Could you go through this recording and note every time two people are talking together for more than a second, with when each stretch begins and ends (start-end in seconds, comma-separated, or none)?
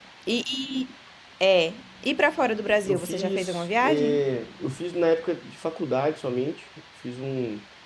2.8-4.2